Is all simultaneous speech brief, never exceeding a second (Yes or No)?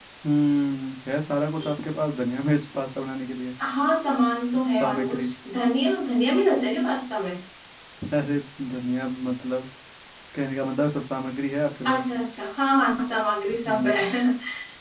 Yes